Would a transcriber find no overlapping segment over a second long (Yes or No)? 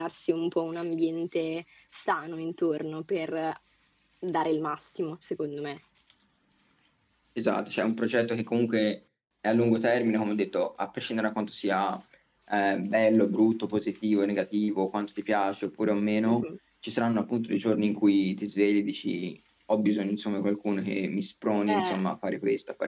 Yes